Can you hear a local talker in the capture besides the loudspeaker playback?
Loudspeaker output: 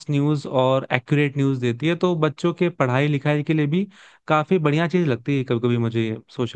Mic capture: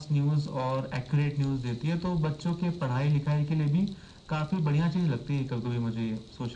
No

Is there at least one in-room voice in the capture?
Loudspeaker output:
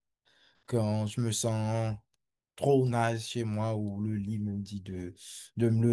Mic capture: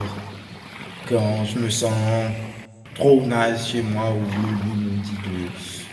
No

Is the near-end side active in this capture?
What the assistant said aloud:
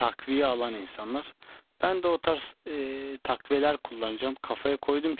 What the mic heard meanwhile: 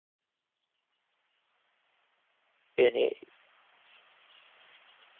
Yes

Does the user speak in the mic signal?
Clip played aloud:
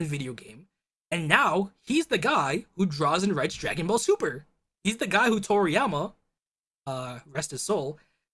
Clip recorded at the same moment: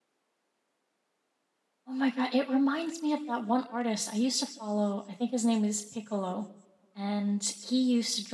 Yes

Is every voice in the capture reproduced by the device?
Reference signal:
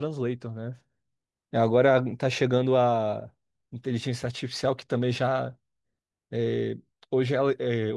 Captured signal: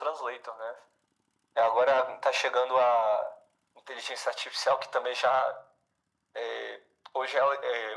Yes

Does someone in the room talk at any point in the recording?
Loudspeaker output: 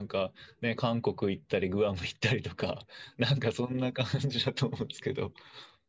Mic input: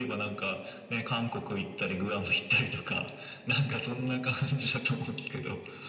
No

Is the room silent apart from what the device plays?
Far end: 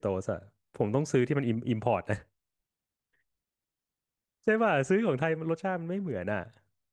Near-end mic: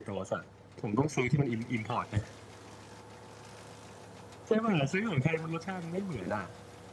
Yes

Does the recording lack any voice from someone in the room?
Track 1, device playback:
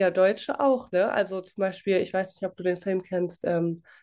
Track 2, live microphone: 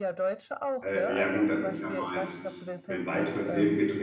No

